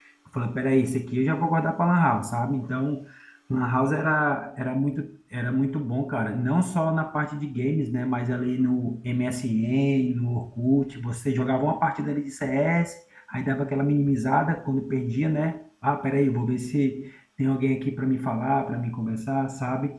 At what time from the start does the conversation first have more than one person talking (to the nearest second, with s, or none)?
none